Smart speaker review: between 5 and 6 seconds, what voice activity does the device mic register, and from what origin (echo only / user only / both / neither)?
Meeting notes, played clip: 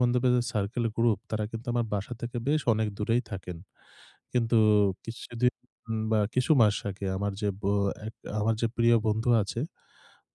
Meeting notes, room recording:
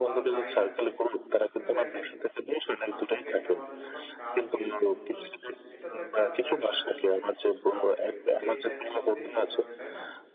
both